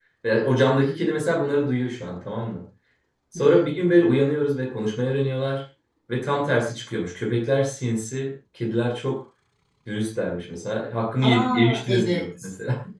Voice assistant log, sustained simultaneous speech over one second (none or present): present